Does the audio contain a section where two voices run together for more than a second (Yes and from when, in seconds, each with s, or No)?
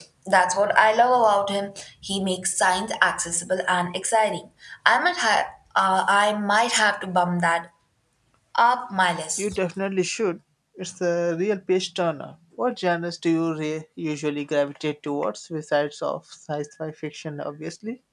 No